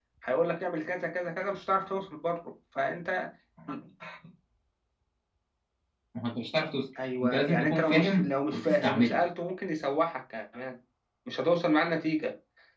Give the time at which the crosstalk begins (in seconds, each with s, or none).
7.2 s